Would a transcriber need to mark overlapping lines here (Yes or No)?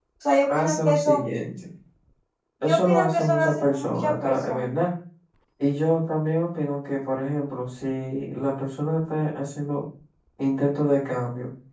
Yes